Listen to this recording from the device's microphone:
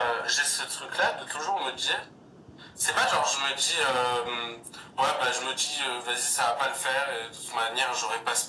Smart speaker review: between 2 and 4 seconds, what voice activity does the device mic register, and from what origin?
echo only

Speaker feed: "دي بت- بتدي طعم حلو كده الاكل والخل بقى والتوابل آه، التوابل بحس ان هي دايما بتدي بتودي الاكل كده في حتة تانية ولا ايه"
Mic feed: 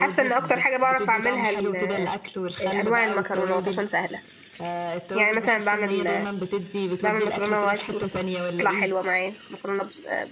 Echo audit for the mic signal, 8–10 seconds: both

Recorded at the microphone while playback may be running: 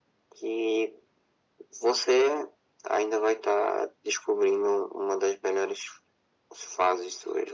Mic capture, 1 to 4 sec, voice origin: echo only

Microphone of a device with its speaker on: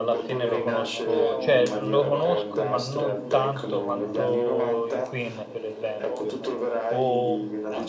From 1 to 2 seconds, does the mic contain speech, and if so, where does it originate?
both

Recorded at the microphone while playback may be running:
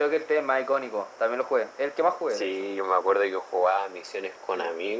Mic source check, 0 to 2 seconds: echo only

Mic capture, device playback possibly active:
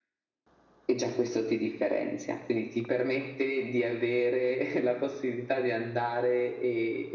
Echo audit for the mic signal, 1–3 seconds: echo only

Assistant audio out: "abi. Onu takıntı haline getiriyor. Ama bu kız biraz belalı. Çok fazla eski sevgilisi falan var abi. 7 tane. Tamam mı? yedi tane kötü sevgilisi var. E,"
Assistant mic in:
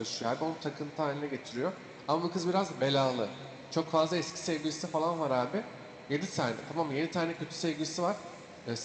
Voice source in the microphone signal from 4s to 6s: echo only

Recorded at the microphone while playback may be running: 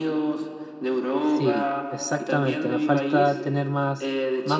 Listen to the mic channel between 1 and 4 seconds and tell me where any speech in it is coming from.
both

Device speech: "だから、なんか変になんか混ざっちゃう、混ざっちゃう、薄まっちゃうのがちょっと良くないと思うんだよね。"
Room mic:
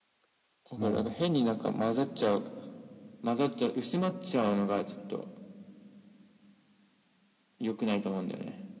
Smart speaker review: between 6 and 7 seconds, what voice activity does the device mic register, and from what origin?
neither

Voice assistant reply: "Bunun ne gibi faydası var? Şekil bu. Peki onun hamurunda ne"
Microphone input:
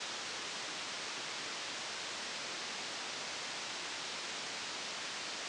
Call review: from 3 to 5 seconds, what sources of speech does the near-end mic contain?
neither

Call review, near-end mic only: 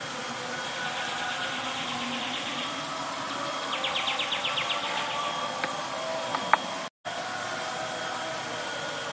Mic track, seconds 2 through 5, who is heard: neither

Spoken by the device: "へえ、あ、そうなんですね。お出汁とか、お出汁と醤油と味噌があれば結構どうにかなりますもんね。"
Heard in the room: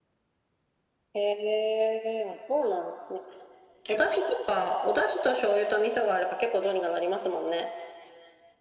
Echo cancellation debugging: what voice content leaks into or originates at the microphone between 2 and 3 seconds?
echo only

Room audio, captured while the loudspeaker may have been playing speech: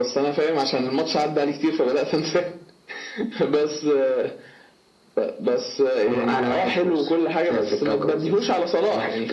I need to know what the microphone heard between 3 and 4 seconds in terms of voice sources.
echo only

